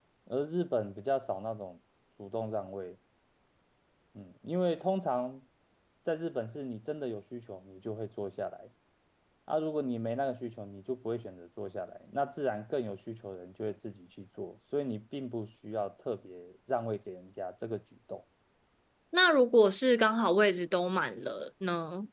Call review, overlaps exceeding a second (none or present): none